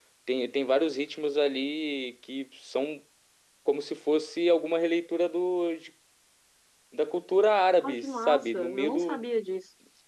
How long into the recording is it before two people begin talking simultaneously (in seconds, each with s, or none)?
7.8 s